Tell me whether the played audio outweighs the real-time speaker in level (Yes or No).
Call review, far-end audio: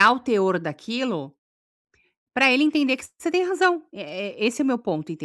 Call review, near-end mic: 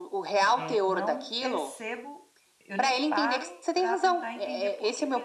Yes